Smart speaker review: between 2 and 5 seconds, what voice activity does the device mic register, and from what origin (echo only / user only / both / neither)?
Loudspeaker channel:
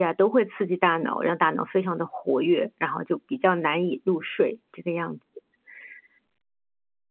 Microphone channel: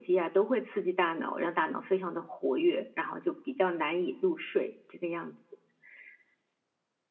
echo only